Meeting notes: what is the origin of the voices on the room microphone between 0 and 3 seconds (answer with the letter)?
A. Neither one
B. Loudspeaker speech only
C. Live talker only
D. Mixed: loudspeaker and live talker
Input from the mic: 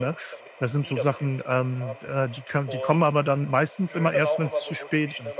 D